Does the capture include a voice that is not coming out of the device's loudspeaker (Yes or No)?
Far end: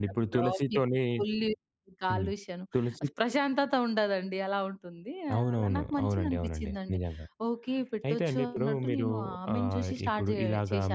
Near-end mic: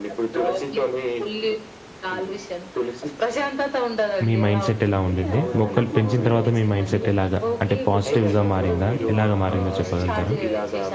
Yes